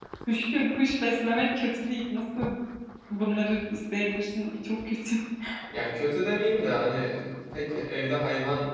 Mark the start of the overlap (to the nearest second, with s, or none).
none